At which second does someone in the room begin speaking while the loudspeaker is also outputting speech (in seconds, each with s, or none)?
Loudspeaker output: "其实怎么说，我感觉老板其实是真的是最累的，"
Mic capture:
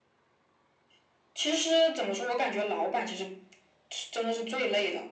none